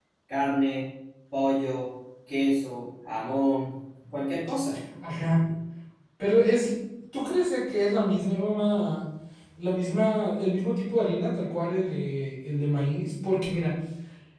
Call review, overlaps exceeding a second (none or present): none